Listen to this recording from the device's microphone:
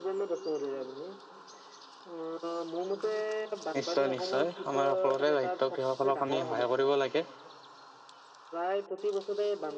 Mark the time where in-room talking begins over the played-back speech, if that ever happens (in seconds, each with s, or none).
3.8 s